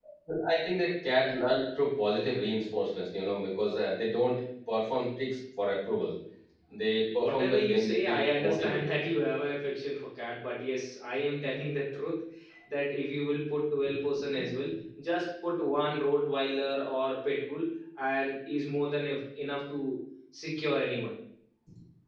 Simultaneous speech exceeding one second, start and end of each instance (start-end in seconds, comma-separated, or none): 7.2-8.8